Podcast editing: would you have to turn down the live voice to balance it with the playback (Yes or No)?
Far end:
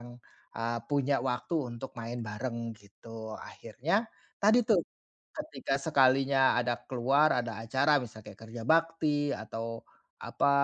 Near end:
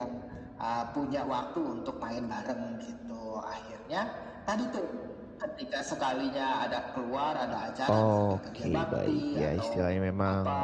Yes